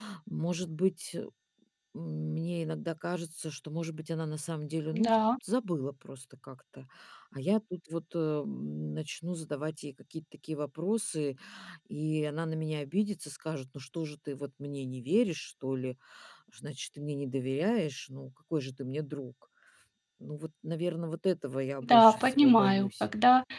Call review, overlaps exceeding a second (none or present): present